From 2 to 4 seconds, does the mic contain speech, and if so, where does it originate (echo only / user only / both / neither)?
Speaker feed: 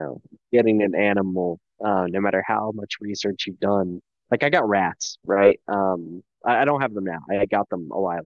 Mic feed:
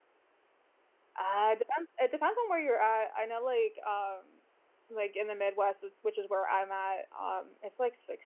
user only